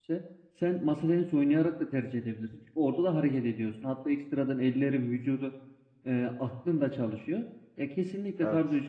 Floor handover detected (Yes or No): No